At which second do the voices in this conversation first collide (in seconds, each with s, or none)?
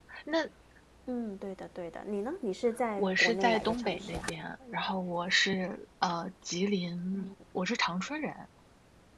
3.0 s